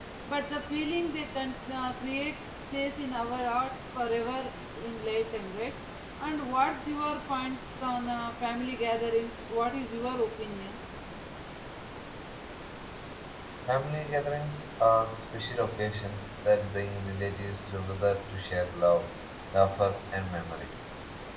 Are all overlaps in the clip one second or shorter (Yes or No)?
Yes